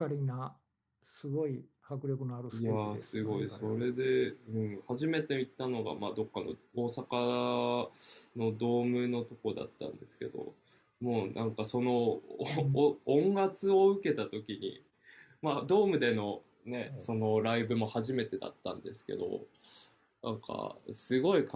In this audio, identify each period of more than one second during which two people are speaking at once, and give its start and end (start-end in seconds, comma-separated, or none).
2.5-3.8